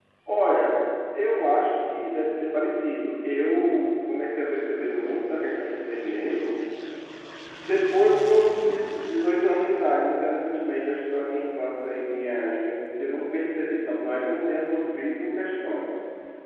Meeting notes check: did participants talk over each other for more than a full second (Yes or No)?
No